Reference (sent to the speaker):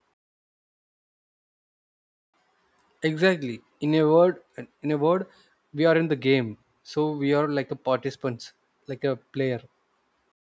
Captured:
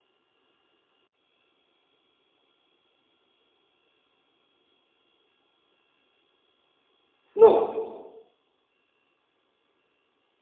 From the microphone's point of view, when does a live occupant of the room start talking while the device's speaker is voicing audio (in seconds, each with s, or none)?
7.4 s